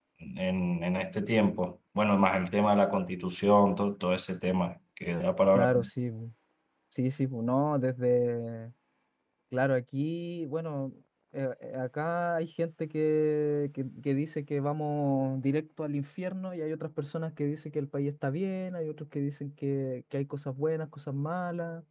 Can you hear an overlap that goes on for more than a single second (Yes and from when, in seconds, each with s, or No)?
No